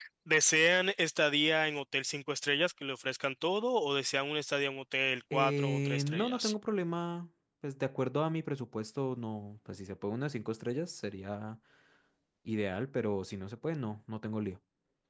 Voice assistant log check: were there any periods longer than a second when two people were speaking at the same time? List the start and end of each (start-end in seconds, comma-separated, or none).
5.3-6.5